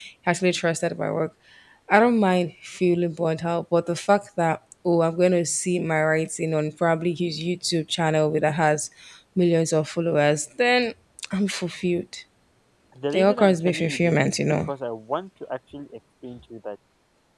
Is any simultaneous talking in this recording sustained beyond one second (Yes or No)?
Yes